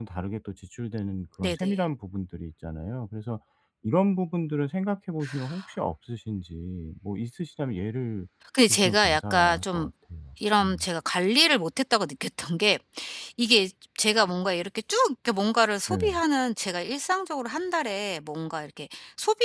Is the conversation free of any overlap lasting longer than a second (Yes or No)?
No